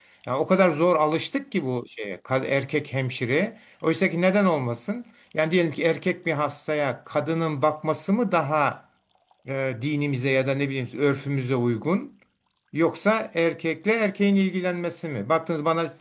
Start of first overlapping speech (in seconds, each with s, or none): none